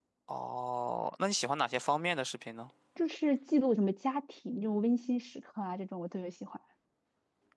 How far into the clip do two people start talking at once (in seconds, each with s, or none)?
none